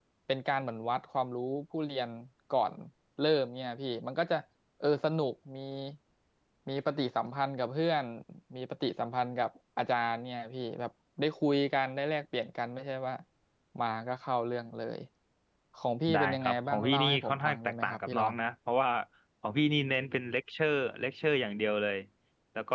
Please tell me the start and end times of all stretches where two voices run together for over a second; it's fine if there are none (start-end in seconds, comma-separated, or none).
16.1-18.3